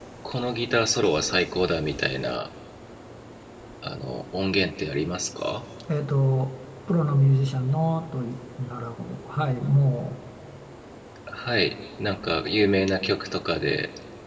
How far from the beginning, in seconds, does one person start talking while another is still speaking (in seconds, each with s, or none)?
none